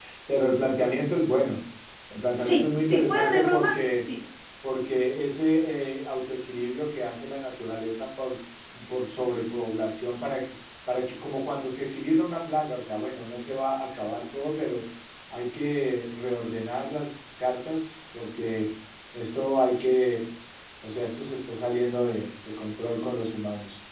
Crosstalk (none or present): present